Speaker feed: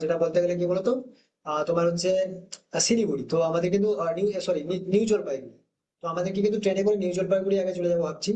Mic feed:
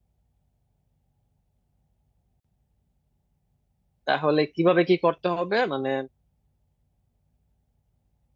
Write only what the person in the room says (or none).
তাহলে কিভাবে কি করতে হবে মানে